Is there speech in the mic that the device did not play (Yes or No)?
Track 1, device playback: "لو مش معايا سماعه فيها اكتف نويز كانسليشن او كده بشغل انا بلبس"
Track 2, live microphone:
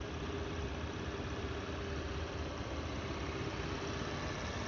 No